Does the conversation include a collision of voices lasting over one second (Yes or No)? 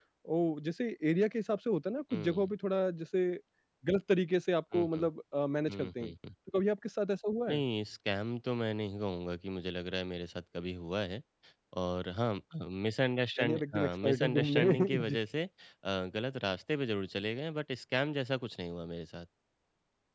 Yes